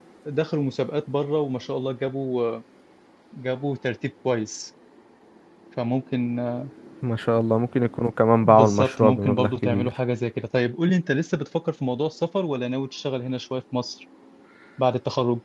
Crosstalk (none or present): present